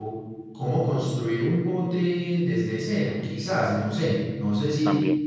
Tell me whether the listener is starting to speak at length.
No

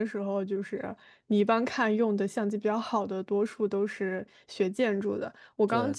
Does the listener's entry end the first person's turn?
No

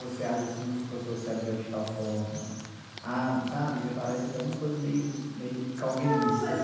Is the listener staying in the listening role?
No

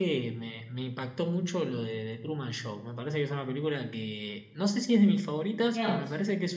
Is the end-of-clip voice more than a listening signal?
No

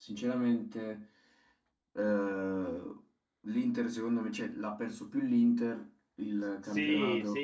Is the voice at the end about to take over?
Yes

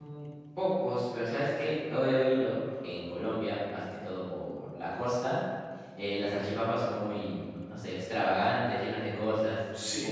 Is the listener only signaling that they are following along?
No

